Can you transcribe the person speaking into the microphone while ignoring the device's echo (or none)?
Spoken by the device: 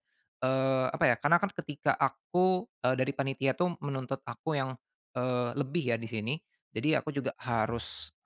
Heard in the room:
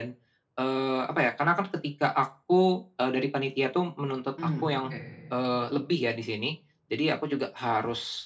Mmm, oke.